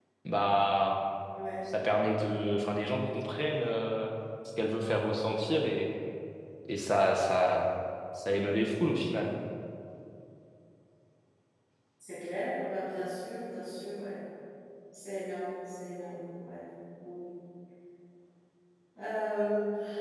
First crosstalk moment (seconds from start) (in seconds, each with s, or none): none